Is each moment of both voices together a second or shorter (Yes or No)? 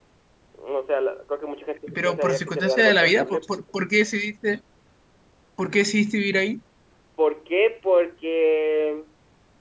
No